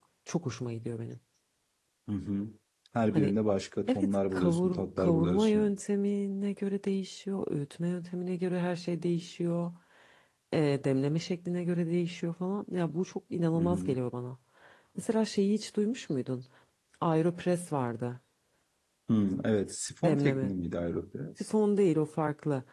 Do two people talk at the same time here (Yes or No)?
Yes